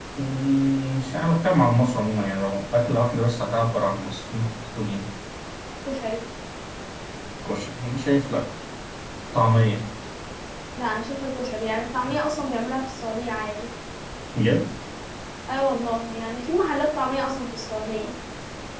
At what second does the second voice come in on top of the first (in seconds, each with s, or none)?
none